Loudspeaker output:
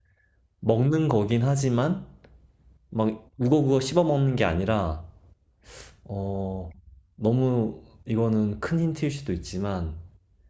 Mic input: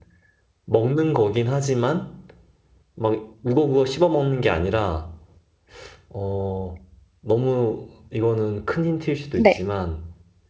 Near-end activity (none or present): present